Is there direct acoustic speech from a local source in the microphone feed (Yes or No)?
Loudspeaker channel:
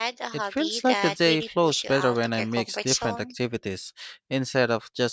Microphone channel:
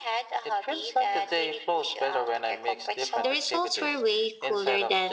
Yes